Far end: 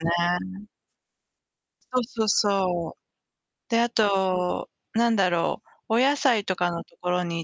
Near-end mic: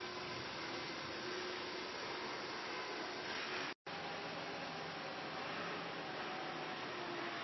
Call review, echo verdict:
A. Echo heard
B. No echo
B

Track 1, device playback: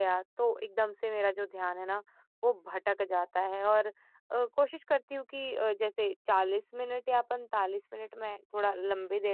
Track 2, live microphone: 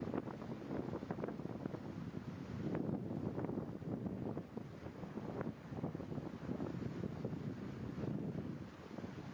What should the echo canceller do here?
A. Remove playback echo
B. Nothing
B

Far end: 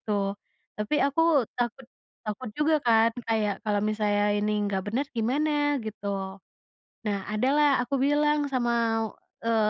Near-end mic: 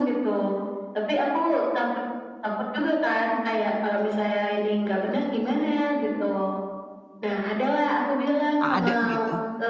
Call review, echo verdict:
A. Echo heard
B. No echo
A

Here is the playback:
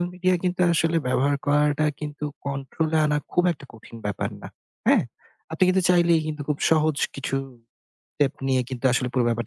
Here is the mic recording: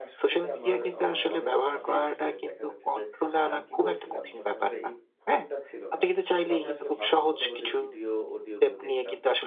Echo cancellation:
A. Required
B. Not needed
A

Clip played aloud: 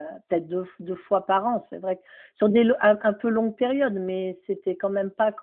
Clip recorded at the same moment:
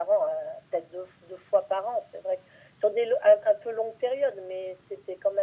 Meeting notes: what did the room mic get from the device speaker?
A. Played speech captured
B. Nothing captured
A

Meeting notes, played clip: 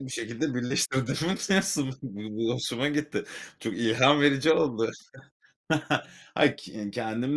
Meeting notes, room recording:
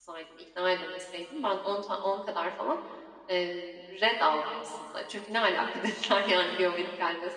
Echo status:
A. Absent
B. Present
A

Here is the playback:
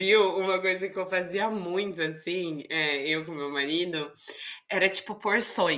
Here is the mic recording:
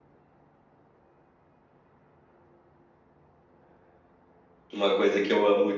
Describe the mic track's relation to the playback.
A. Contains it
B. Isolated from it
B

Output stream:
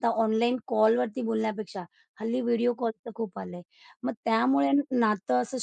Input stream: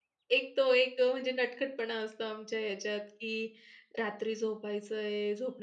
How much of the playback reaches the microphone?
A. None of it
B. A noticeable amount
A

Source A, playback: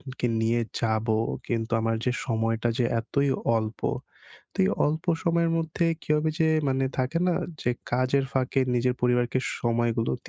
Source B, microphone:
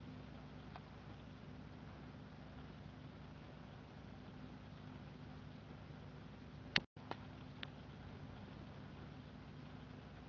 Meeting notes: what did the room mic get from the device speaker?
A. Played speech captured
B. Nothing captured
B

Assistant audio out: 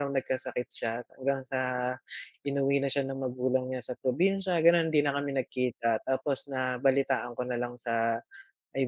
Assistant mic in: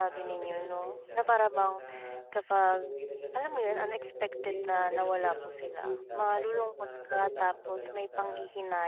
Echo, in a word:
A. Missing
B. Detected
B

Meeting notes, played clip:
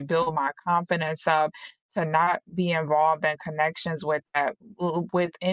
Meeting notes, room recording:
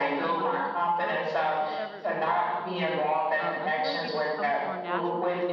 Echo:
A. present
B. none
A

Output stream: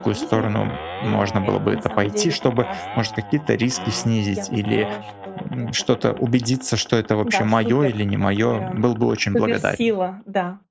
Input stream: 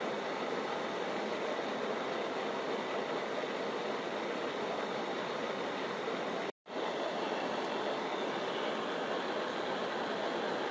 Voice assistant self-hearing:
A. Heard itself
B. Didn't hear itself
B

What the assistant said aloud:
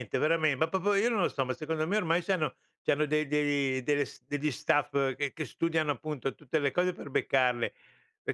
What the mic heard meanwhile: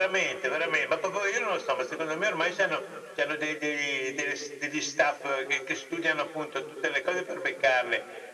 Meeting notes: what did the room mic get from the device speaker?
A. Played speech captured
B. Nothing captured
A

